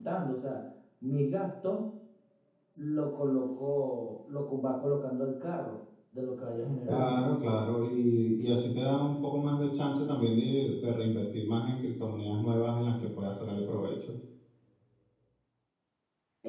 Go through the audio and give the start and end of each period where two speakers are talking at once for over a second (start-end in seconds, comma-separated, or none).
none